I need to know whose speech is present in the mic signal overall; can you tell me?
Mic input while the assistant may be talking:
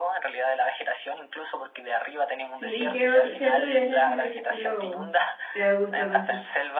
both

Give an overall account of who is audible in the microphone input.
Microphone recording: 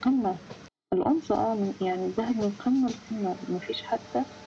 echo only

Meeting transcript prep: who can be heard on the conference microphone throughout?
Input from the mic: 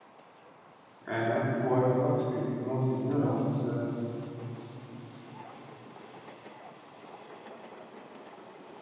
user only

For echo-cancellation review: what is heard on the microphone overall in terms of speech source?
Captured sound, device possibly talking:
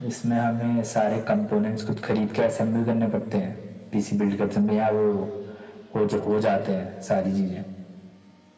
echo only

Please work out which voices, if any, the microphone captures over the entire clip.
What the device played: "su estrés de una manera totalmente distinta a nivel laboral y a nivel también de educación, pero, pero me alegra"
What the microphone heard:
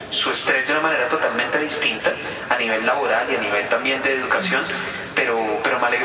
both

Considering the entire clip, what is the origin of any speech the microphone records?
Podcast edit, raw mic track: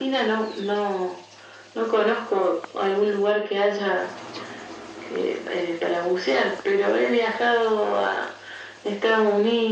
echo only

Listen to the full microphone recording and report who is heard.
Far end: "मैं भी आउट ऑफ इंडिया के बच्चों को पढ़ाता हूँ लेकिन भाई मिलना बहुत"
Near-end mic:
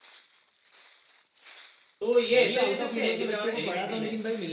both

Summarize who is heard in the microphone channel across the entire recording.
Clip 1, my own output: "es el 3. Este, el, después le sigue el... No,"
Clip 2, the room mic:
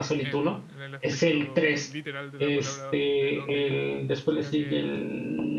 both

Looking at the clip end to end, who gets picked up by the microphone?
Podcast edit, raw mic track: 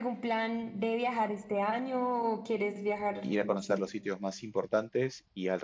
both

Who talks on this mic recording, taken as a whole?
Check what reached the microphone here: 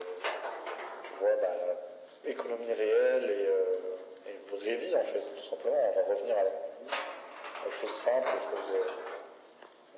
echo only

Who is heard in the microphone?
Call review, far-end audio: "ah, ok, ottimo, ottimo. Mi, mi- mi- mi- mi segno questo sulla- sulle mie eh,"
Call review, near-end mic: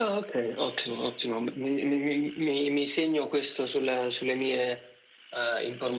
echo only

